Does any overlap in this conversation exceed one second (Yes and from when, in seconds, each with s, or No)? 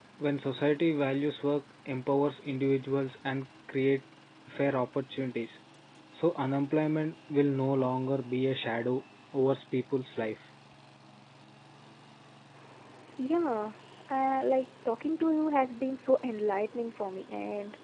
No